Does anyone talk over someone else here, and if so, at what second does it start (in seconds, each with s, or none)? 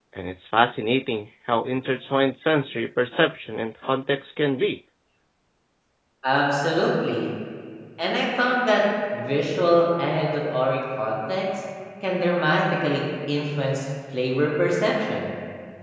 none